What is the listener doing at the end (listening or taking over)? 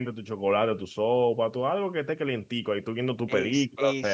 taking over